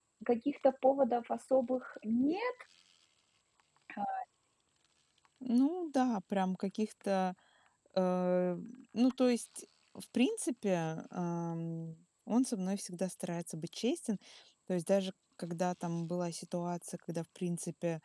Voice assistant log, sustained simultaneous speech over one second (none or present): none